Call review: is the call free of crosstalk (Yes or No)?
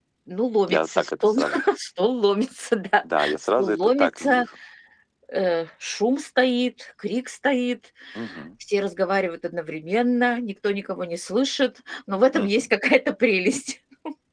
No